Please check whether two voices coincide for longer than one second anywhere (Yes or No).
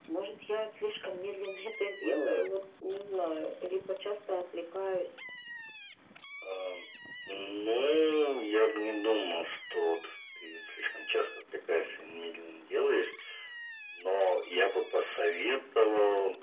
No